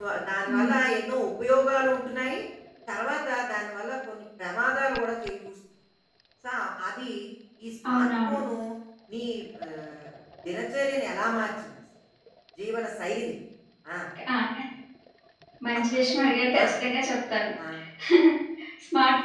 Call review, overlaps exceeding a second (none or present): none